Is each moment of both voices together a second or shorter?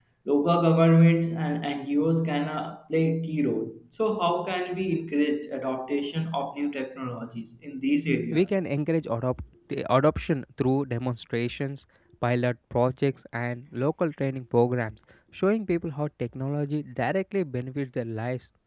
Yes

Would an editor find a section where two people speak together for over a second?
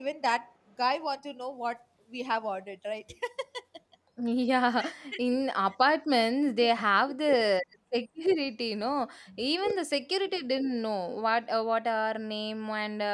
No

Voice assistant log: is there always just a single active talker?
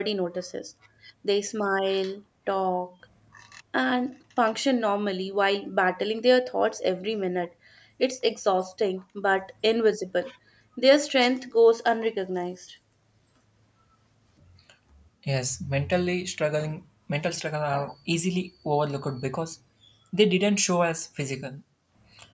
Yes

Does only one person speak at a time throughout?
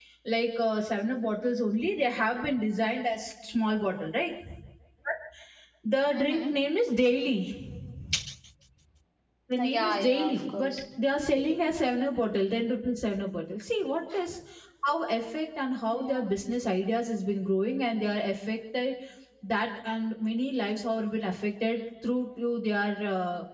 No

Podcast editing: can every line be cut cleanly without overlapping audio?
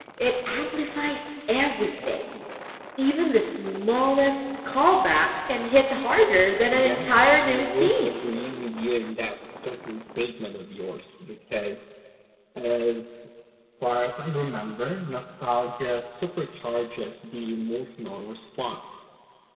No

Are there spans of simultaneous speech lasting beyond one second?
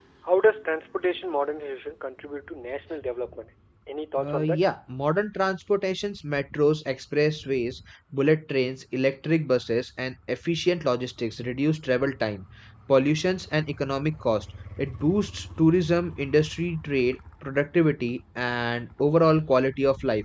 No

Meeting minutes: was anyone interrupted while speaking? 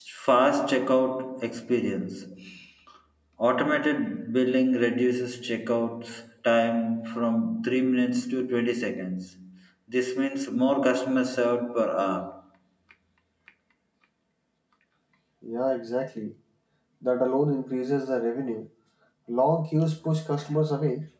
No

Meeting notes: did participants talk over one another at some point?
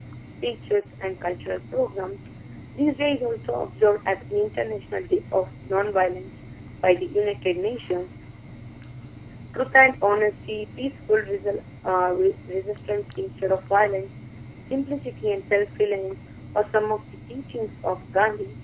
No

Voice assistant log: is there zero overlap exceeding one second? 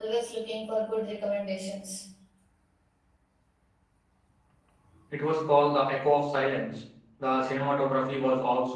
Yes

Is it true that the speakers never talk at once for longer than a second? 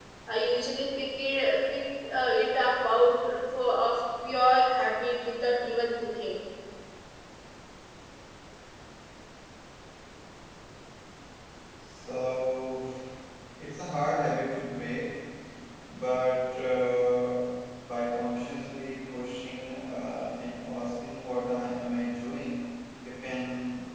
Yes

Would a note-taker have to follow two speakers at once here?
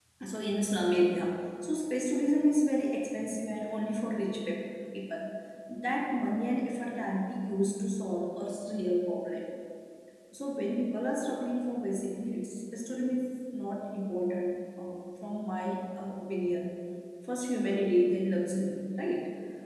No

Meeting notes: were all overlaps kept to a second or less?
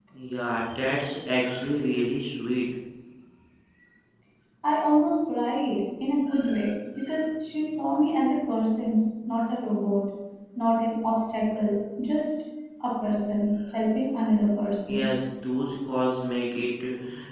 Yes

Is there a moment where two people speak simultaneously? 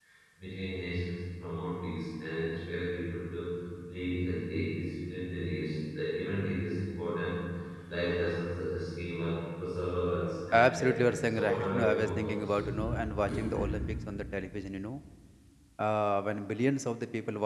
Yes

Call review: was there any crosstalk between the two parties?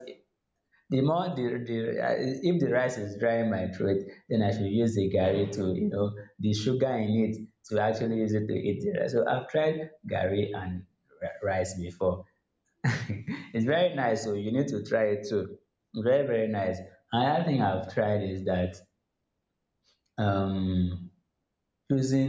No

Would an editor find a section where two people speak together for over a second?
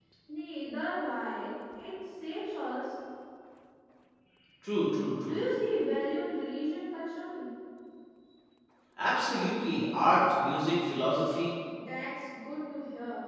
No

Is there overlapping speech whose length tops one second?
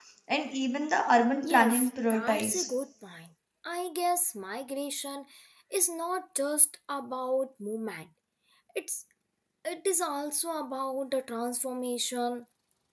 Yes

